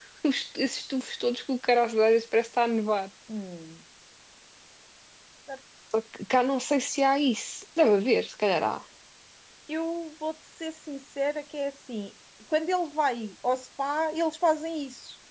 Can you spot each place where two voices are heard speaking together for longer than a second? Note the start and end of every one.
none

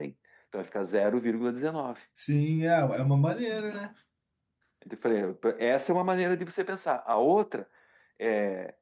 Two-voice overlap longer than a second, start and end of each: none

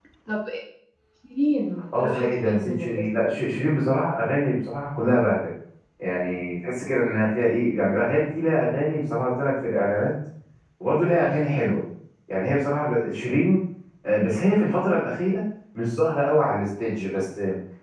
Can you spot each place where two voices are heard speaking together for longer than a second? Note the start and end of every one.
2.0-3.4

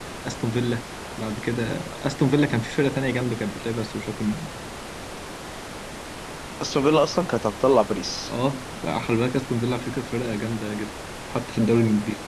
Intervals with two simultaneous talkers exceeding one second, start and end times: none

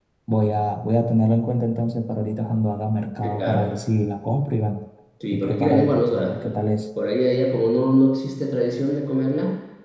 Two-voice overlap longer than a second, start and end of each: 5.3-6.5

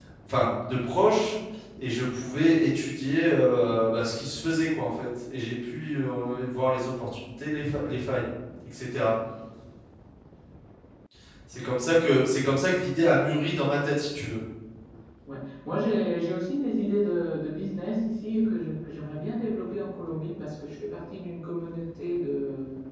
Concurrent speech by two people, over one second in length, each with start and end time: none

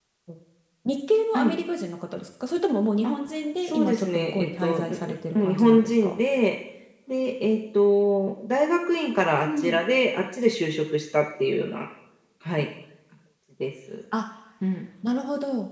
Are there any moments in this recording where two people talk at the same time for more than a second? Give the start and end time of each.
3.6-6.1

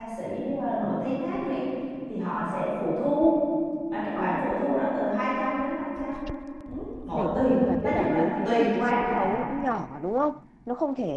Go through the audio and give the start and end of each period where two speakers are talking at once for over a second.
7.1-9.3

